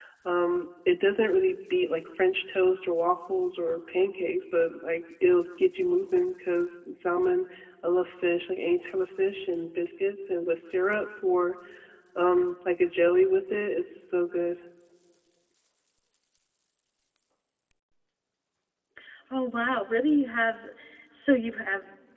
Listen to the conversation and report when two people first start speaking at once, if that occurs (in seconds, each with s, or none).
none